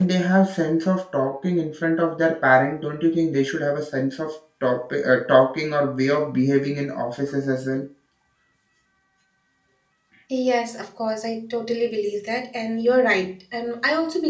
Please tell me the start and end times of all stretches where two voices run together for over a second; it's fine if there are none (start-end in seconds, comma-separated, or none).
none